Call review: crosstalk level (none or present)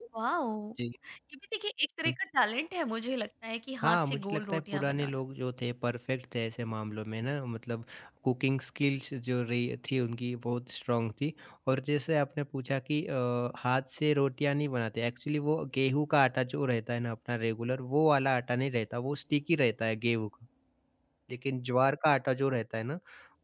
present